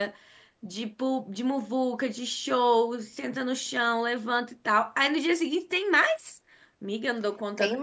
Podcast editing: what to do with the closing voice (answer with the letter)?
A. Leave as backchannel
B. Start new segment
B